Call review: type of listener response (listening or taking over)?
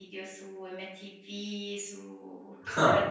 listening